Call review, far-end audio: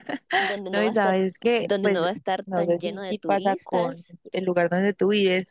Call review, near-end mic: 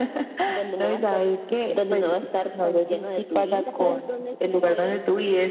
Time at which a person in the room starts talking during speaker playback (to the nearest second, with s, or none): 4 s